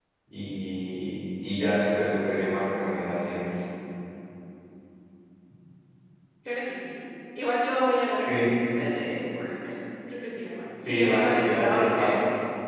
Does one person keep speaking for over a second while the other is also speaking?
Yes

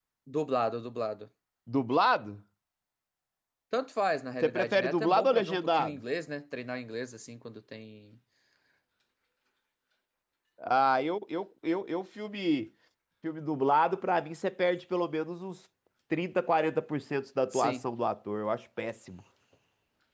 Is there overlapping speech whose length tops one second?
Yes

